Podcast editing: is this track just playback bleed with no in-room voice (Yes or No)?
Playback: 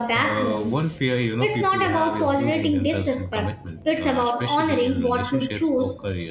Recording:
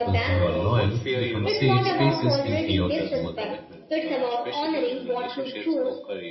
No